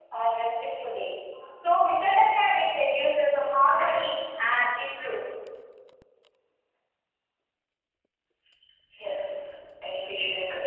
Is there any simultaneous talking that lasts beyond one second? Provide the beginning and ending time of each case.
none

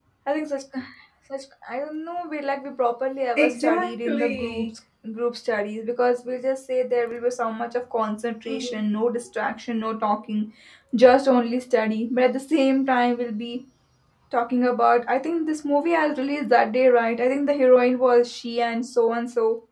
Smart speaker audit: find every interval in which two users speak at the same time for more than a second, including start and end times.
3.4-4.7

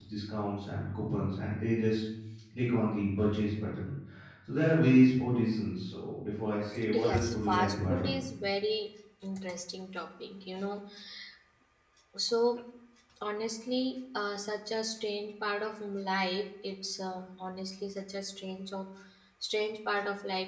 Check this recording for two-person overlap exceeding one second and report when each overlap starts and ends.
6.9-8.2

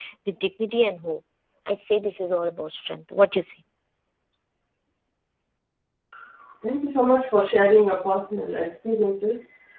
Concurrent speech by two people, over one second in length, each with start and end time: none

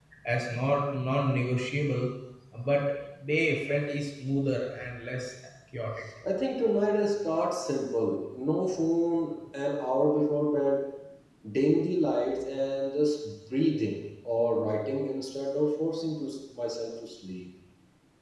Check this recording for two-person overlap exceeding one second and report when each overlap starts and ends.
none

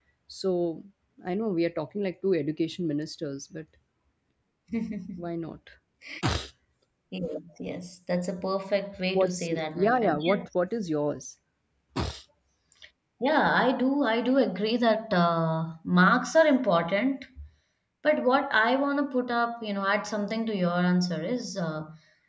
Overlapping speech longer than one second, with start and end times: 9.1-10.4

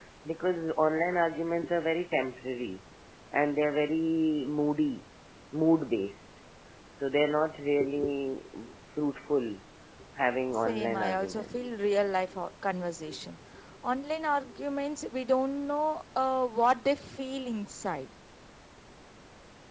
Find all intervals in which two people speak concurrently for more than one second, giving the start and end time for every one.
10.6-11.8

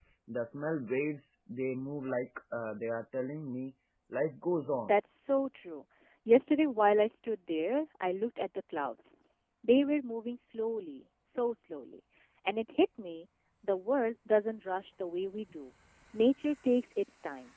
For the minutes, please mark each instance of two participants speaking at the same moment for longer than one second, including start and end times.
none

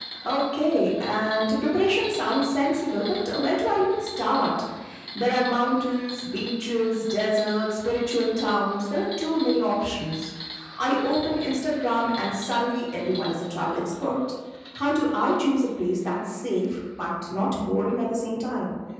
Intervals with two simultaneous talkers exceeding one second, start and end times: none

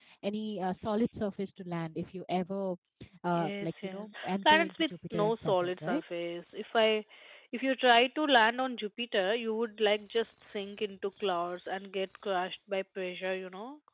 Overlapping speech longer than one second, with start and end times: 3.4-6.0

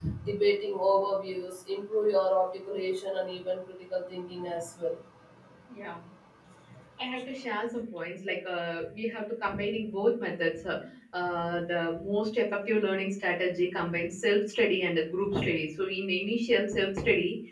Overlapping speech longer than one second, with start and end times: none

